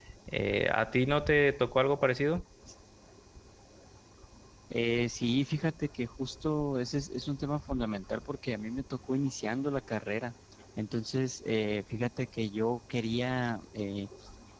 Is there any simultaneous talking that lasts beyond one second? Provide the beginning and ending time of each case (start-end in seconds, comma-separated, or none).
none